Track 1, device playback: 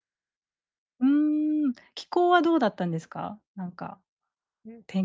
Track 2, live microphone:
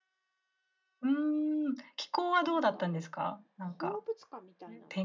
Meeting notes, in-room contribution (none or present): present